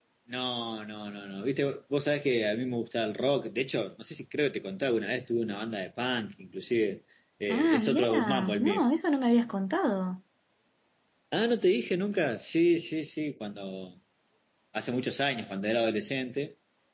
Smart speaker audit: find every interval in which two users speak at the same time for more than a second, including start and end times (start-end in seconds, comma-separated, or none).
7.5-8.8